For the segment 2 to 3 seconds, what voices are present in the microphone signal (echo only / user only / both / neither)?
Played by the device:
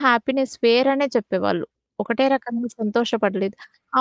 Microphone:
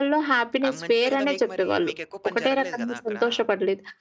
both